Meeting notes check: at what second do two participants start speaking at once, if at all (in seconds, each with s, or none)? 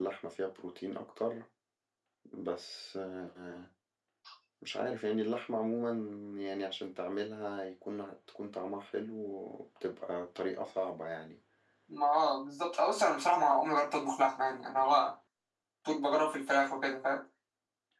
none